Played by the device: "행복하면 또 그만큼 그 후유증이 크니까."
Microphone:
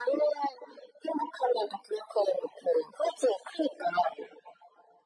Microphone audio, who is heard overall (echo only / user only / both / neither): echo only